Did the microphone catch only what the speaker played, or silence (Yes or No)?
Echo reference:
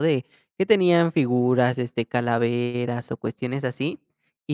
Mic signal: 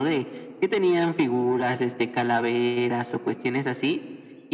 Yes